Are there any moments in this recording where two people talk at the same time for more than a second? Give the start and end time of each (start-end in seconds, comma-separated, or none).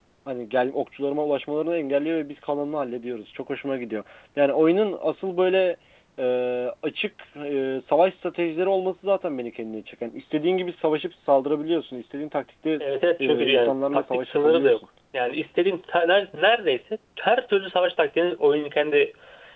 13.2-14.7